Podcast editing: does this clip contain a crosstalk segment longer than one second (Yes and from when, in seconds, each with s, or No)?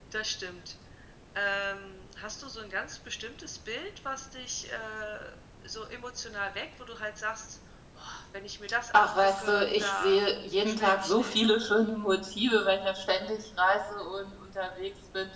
Yes, from 8.9 s